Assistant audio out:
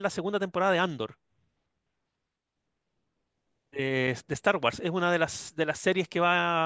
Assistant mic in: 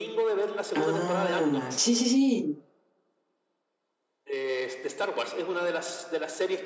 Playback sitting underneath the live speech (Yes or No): Yes